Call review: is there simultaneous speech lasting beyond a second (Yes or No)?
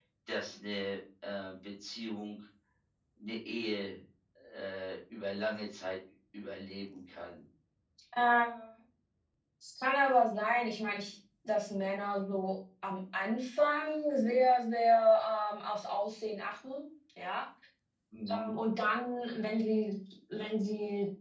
No